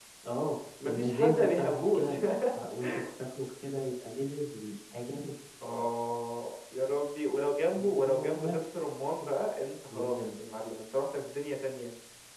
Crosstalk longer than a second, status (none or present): present